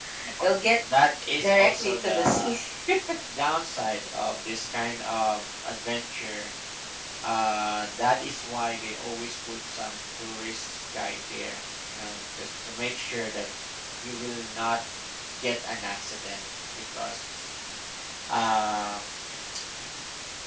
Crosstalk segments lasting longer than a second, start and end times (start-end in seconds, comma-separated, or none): 1.4-2.6